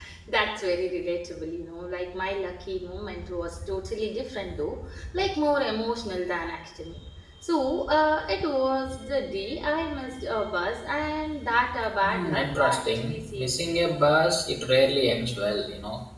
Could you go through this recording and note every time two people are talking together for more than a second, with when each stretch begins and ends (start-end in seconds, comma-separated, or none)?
12.0-13.8